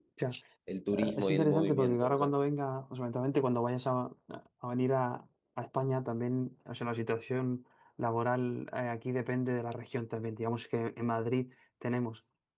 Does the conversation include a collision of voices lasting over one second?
Yes, from 0.9 s

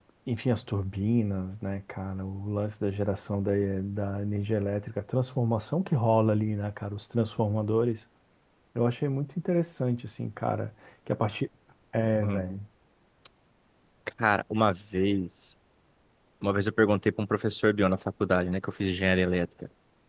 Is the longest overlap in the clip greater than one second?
No

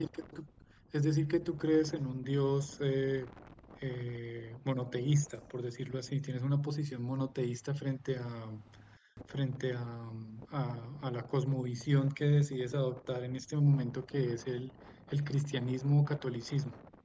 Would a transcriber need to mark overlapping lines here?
No

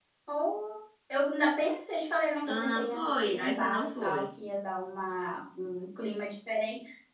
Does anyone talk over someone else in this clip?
Yes, from 2.4 s

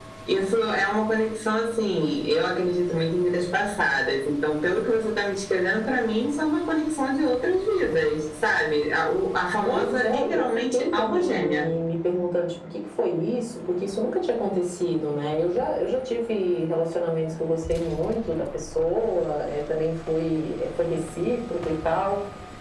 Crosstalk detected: Yes, from 9.6 s

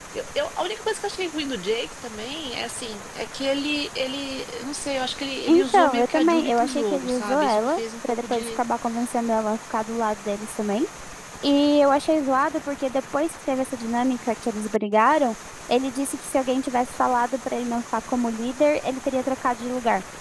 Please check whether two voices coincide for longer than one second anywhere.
Yes, from 5.5 s

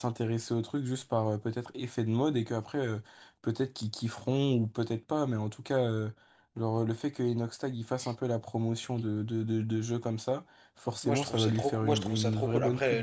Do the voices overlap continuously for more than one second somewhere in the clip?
Yes, from 11.0 s

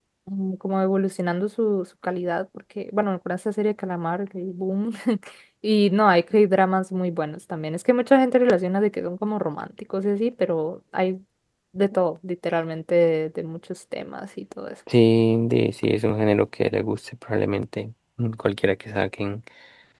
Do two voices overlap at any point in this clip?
No

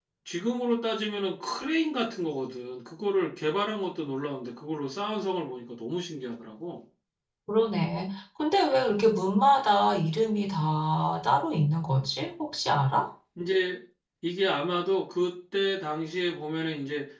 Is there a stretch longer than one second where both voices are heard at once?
No

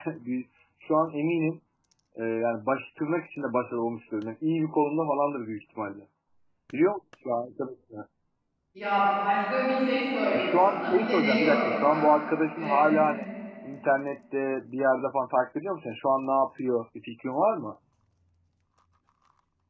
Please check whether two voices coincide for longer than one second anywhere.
Yes, from 10.4 s

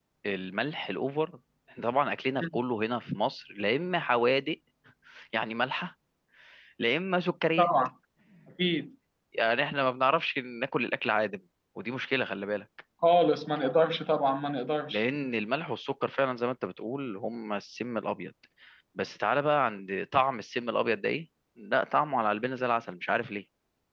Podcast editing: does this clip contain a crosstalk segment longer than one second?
No

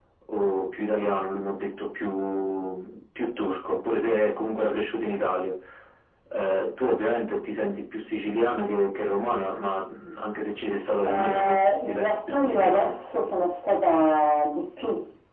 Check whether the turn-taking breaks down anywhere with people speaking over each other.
Yes, from 11.0 s

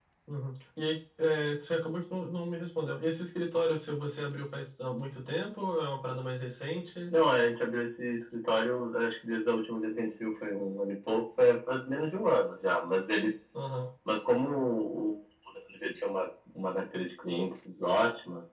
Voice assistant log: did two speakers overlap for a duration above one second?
No

